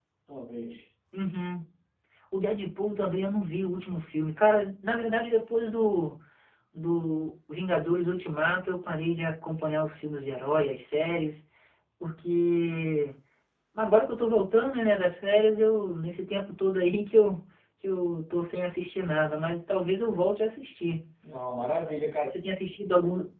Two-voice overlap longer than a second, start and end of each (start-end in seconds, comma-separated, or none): none